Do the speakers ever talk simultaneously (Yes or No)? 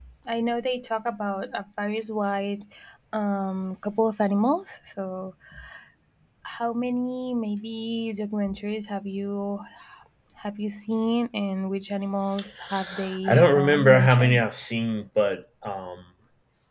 Yes